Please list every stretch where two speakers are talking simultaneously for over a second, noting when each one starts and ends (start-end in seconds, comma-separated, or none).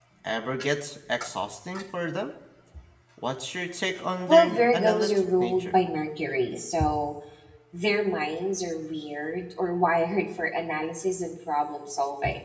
4.3-5.7